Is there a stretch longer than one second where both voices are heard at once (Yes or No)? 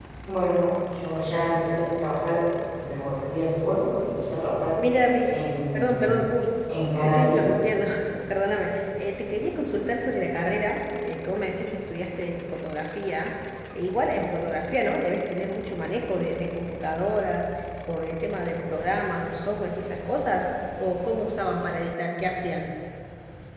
No